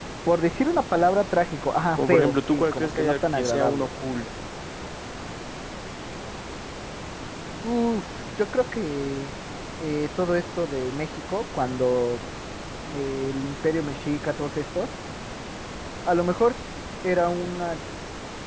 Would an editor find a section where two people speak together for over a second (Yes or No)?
Yes